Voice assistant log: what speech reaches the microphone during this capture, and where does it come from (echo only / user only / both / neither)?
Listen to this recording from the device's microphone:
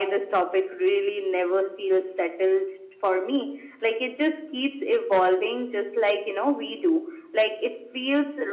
echo only